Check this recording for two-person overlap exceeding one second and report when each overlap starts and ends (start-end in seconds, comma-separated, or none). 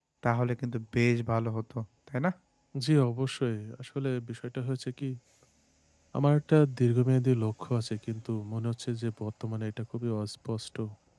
none